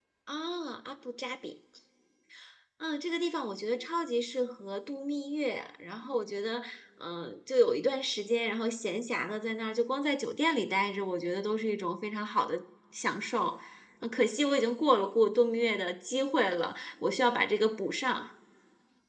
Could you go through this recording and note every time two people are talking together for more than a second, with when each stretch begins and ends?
none

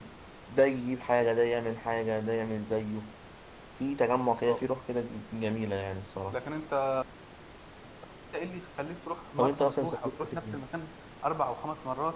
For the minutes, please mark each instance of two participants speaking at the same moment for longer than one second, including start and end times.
9.4-10.6

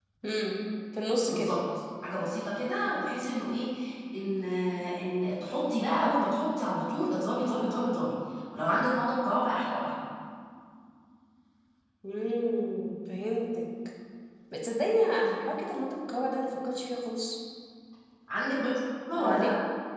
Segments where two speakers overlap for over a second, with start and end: none

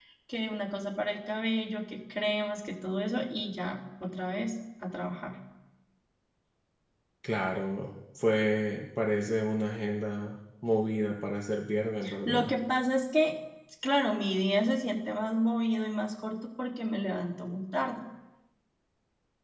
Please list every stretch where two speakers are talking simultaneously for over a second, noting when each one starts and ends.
none

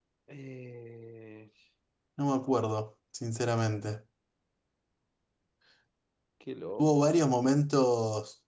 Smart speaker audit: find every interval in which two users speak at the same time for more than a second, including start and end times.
none

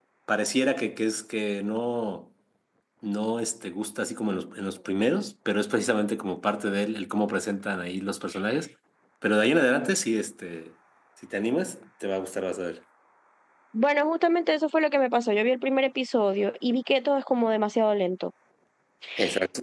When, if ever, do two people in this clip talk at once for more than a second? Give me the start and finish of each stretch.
none

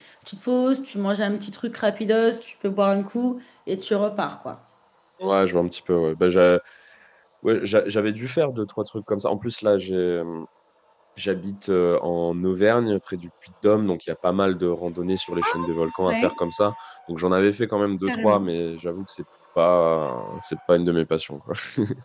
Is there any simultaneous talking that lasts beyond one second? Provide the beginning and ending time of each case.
none

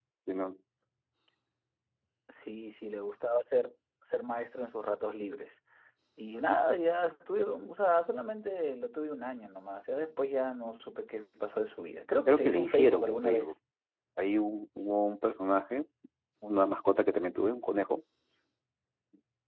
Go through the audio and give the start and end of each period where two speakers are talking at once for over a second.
12.3-13.5

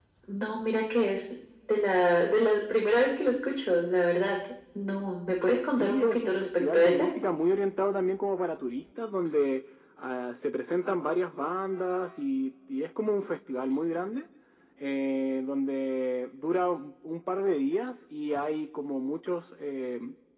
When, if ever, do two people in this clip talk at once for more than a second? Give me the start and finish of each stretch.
5.7-7.1

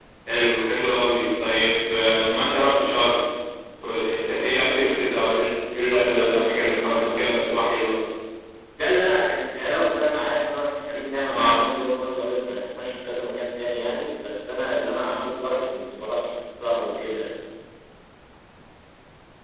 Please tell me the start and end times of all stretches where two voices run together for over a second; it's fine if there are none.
5.9-7.3

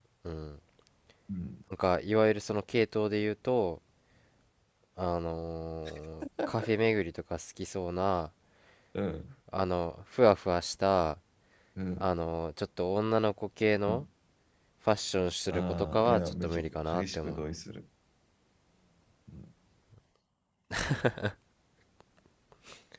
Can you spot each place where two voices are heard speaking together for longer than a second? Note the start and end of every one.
15.5-17.4

